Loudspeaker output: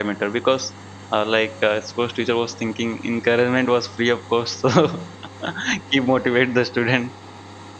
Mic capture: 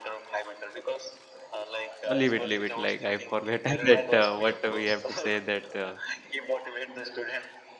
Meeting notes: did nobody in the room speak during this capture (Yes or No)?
No